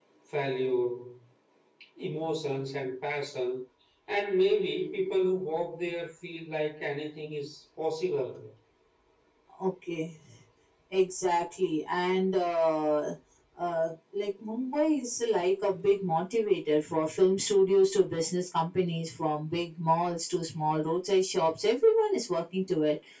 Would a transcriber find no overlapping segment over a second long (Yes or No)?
Yes